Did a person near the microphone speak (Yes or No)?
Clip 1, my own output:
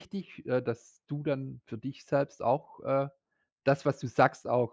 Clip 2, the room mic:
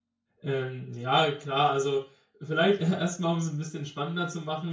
Yes